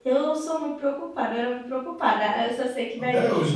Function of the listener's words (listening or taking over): listening